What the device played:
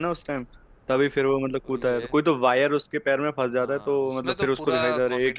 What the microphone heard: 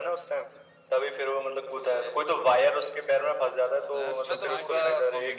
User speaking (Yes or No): Yes